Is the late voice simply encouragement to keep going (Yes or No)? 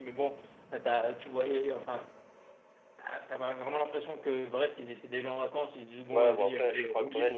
No